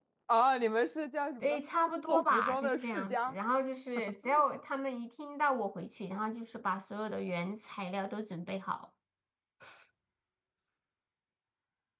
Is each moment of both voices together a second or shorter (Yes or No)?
No